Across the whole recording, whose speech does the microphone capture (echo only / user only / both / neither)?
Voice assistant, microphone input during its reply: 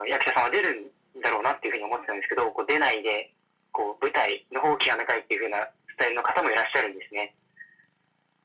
echo only